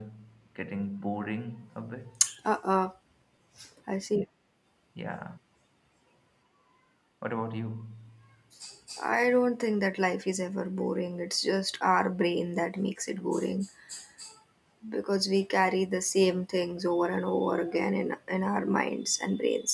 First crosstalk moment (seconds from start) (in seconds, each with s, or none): none